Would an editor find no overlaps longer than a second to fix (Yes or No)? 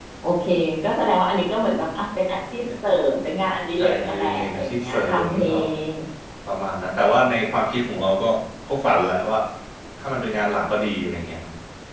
No